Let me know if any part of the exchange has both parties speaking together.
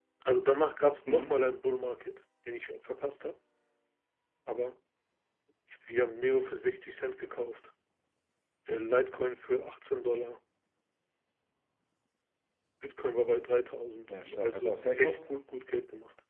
Yes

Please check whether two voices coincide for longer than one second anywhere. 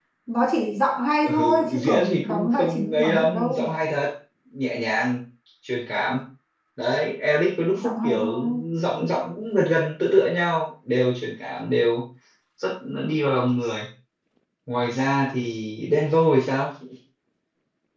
Yes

